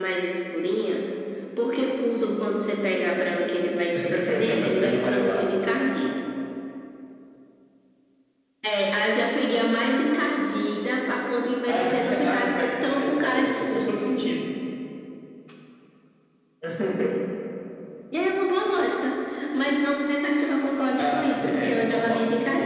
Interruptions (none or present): present